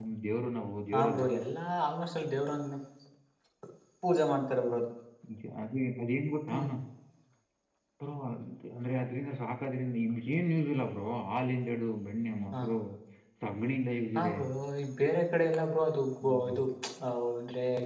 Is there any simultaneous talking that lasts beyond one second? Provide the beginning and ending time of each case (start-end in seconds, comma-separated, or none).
none